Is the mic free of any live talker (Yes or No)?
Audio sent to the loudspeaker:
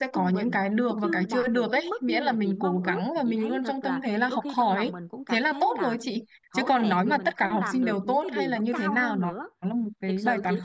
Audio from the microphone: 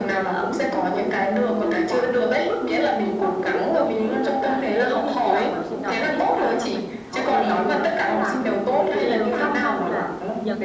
No